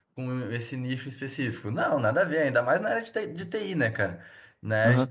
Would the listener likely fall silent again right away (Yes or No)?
No